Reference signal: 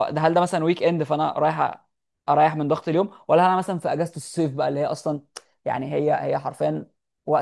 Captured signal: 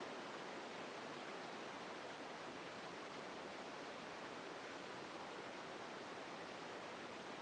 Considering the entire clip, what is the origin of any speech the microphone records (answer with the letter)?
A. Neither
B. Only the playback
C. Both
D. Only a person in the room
A